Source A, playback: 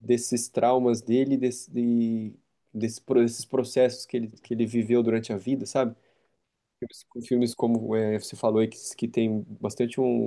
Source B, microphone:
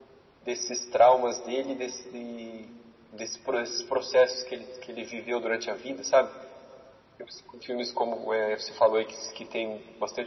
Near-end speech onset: none

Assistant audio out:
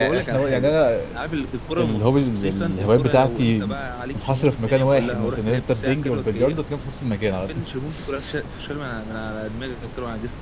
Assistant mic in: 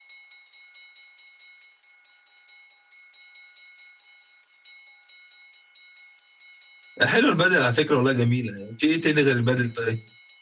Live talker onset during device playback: 7.0 s

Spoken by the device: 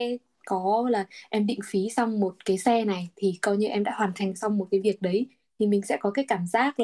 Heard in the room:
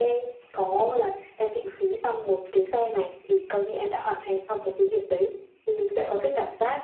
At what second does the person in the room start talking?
none

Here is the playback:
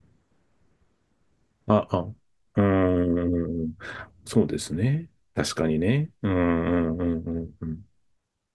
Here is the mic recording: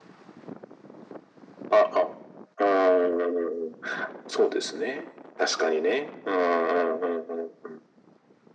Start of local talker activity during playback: none

